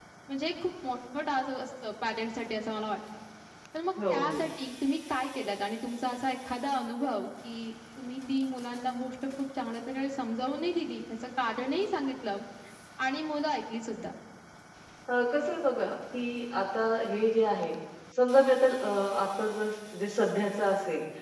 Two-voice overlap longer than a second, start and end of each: none

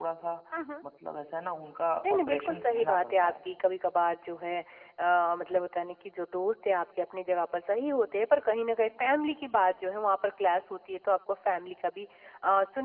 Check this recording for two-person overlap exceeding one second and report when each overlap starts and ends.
2.0-3.3

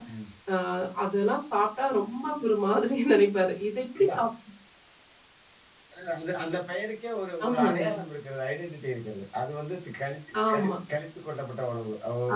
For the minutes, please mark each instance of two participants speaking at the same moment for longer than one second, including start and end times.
none

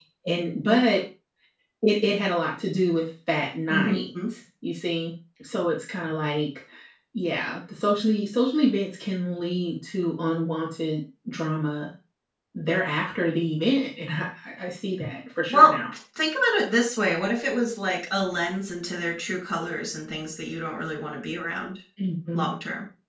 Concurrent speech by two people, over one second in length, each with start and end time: none

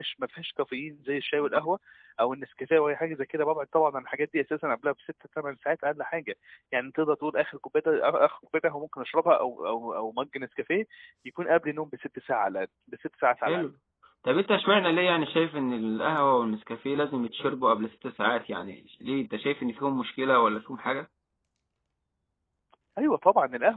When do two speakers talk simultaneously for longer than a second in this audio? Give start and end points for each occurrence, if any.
none

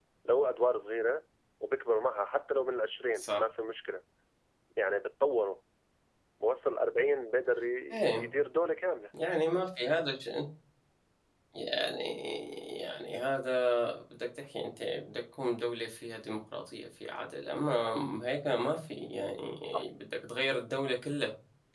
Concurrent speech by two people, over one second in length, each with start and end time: none

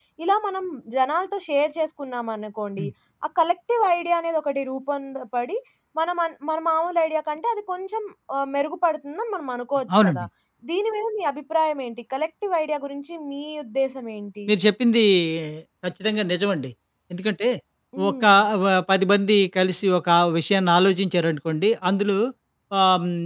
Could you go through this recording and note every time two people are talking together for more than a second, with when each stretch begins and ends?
none

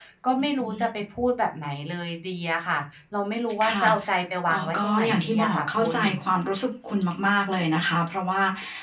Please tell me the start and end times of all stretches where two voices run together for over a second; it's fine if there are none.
4.5-6.0

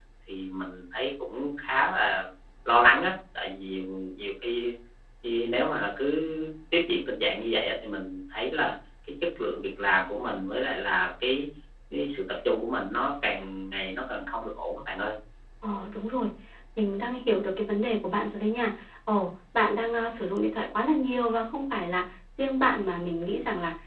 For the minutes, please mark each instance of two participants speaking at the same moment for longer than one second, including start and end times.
none

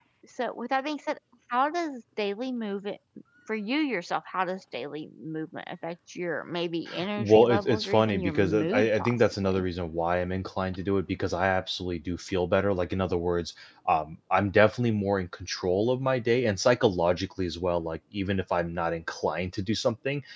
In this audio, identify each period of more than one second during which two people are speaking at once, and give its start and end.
7.2-9.6

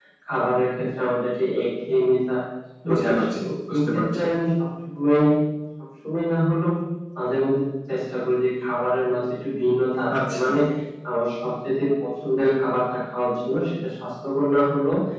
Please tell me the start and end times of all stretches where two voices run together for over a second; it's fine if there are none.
2.9-4.2

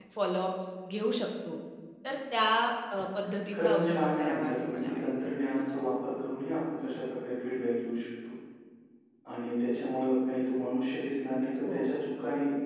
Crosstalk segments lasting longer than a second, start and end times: 3.5-5.0

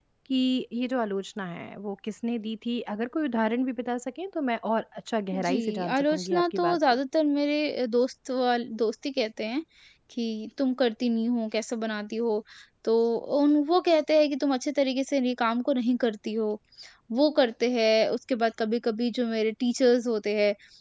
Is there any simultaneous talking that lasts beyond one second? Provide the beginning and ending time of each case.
5.4-7.0

